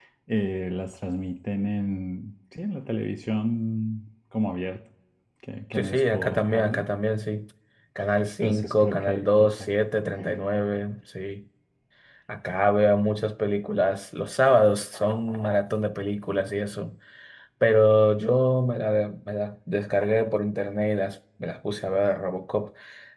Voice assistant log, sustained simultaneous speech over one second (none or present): present